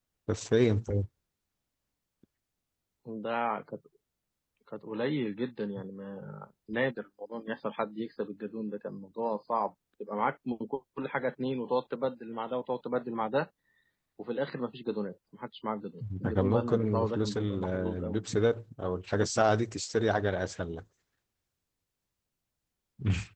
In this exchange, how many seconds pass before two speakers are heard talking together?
16 s

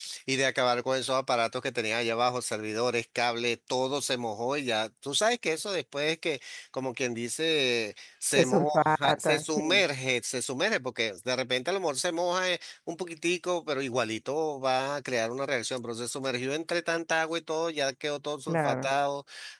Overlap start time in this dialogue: 8 s

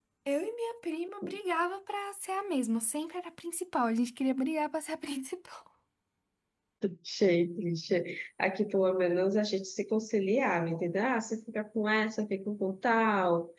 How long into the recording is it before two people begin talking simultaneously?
none

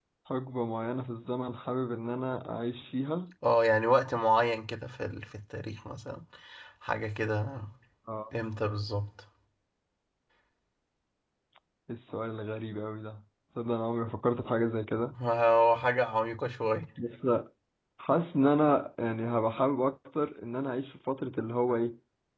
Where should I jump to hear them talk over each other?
none

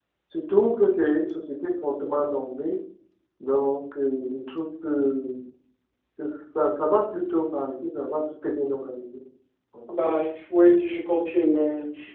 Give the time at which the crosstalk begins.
none

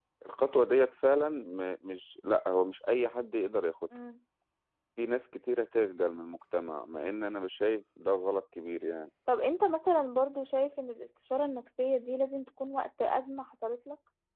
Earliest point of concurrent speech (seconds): none

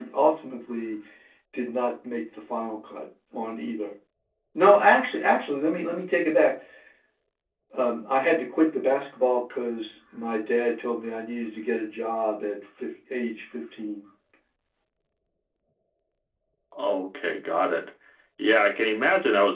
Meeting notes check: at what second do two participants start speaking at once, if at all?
none

